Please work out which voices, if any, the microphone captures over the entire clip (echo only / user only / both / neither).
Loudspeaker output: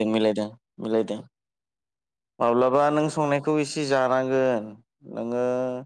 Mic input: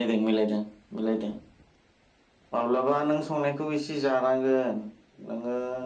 echo only